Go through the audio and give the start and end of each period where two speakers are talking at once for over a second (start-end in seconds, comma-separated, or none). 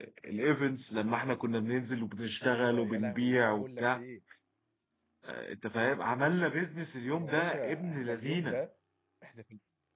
2.5-4.0, 7.2-8.6